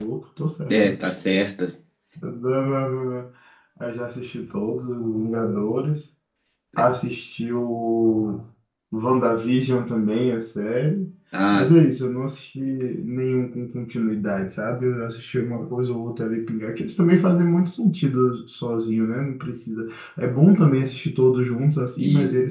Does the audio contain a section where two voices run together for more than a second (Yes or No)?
No